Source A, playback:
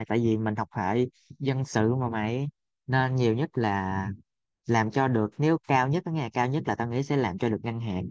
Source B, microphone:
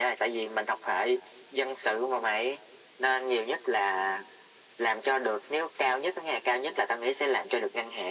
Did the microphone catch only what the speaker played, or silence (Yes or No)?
Yes